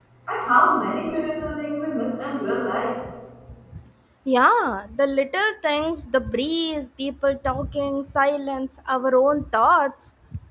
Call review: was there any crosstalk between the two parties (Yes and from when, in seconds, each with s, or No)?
No